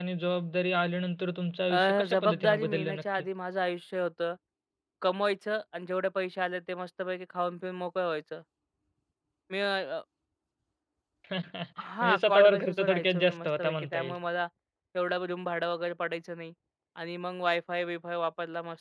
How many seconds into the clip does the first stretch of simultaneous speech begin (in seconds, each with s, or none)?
1.7 s